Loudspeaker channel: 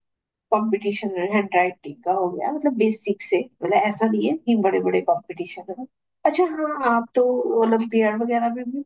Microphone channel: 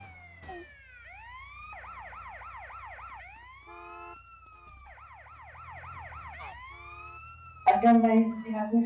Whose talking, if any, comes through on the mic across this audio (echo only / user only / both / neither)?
user only